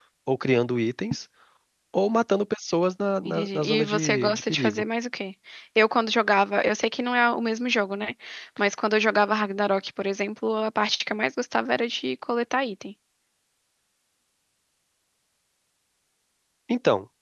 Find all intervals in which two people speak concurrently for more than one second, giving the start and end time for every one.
3.2-4.8

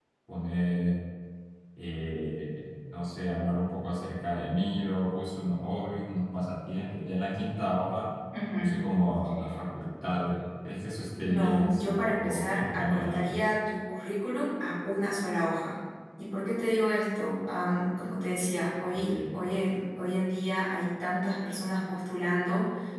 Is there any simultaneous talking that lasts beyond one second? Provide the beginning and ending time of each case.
11.2-13.4

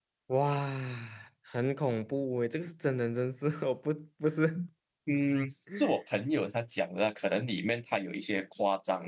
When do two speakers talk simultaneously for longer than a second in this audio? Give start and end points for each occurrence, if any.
none

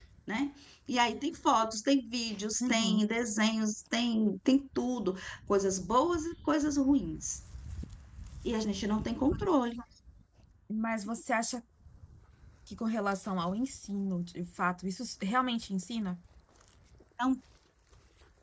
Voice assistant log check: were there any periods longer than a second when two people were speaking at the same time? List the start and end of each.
none

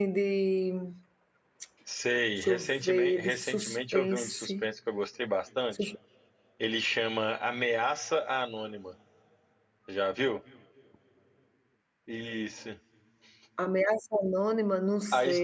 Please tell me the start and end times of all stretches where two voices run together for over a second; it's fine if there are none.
2.4-4.5

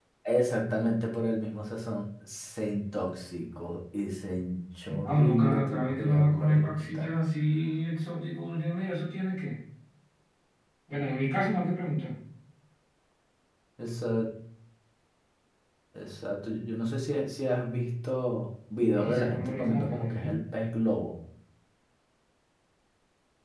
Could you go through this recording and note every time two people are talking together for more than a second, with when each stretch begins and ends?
5.0-7.1, 19.0-20.3

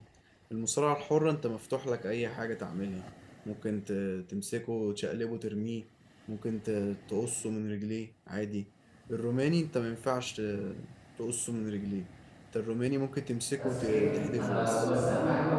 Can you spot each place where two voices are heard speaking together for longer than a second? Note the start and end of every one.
13.5-14.9

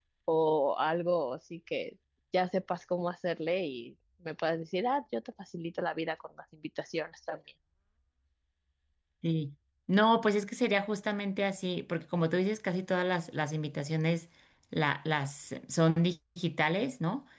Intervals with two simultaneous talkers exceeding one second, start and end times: none

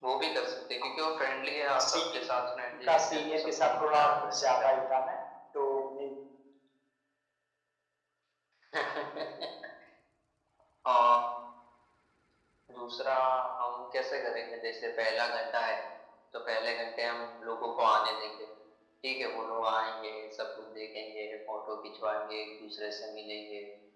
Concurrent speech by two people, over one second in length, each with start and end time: 2.7-4.9

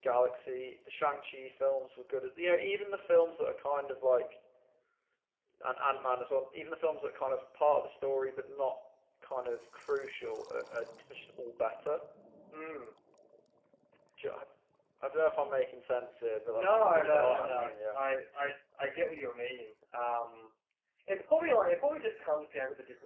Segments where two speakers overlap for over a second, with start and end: 16.5-18.0

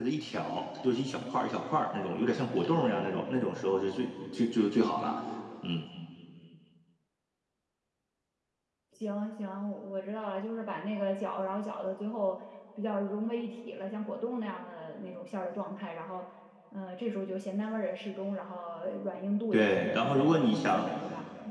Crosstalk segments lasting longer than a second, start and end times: 19.5-20.9

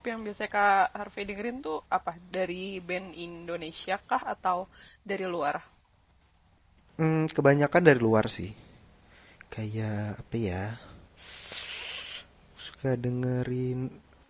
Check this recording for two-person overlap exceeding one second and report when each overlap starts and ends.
none

